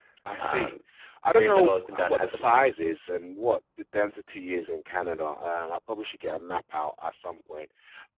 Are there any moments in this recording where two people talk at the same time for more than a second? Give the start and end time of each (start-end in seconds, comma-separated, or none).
1.3-2.7